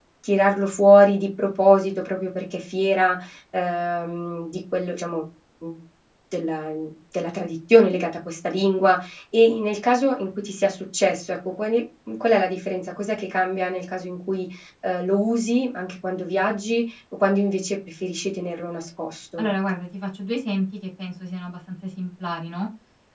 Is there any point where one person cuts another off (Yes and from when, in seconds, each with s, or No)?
No